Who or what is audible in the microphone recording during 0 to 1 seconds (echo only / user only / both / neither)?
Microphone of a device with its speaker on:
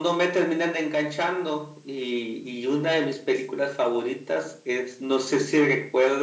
user only